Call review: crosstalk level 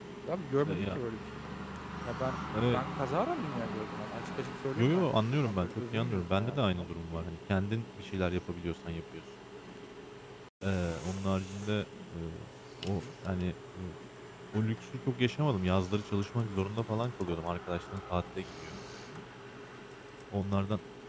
present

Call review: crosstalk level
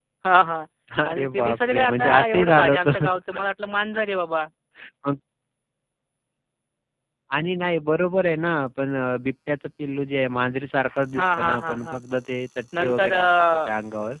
present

